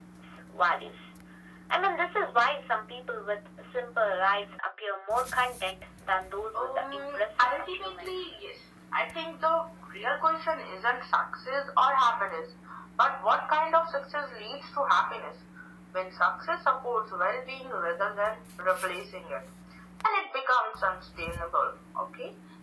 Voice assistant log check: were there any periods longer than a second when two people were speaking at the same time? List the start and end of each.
6.5-8.3

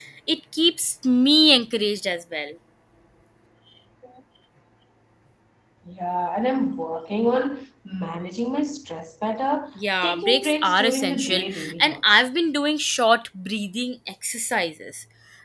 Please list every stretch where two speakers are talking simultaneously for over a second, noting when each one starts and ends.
10.0-12.2

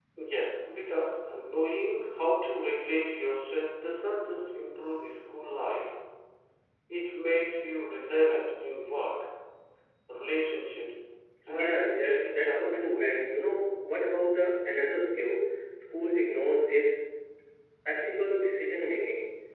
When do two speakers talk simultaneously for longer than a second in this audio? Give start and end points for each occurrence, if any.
11.5-13.1

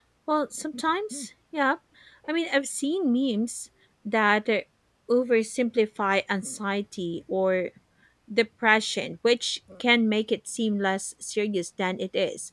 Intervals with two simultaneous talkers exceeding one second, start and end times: none

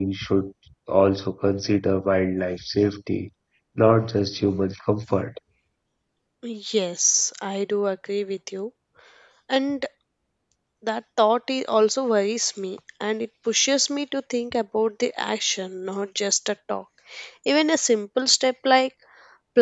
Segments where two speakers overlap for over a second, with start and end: none

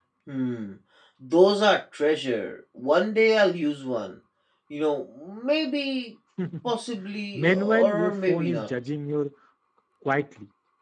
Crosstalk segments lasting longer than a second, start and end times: 7.3-8.7

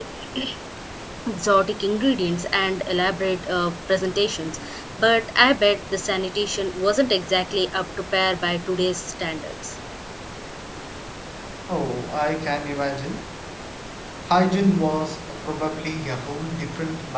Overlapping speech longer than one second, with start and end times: none

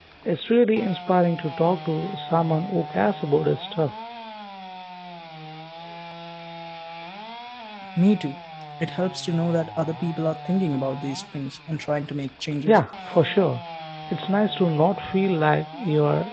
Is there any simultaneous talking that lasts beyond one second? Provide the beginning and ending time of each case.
none

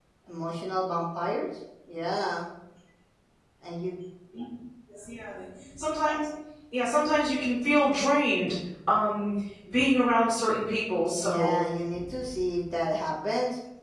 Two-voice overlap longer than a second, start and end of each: none

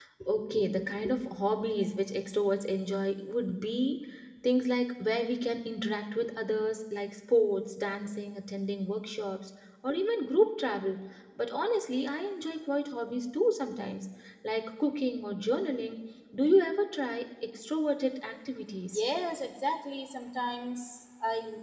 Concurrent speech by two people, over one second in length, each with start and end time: none

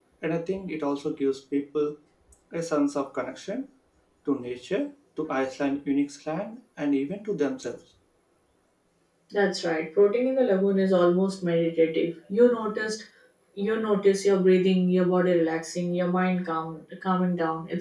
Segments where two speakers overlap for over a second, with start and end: none

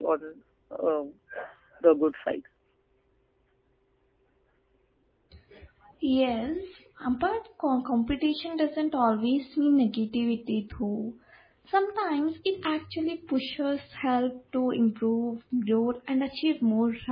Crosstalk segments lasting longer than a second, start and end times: none

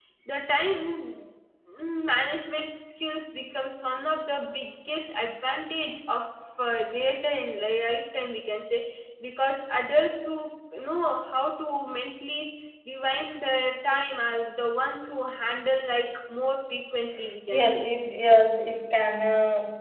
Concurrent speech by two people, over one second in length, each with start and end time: none

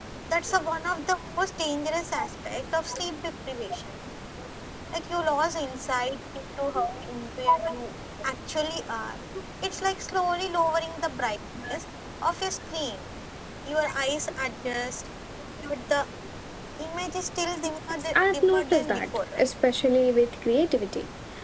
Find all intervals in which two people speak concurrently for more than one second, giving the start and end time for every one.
18.1-19.5

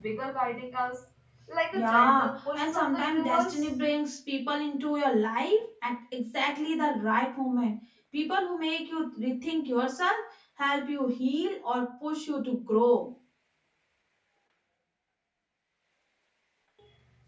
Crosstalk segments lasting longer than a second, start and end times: 1.7-3.7

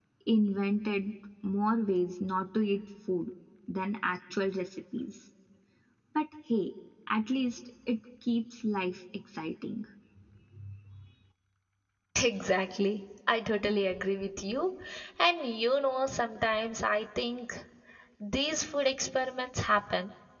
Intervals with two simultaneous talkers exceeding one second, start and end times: none

